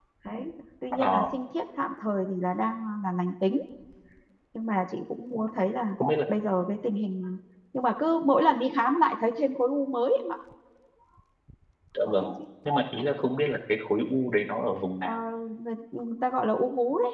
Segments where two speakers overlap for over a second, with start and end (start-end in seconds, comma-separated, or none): none